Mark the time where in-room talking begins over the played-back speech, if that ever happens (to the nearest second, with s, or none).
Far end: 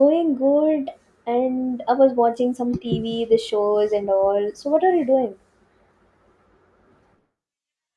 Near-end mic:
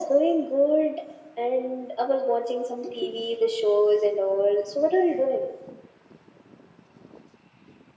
none